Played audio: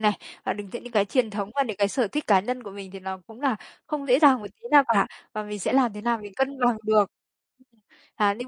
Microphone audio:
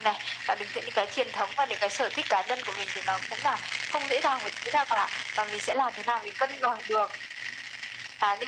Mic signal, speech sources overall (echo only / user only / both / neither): echo only